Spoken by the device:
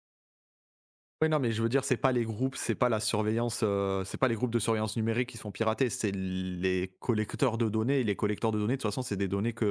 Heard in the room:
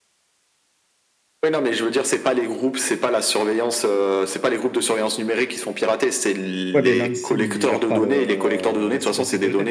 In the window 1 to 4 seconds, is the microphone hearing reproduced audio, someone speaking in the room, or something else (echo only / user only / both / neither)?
echo only